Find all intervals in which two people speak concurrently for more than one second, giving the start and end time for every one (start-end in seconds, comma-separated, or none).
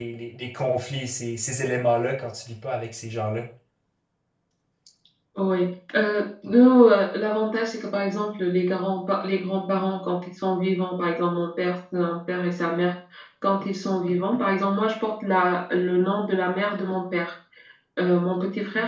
none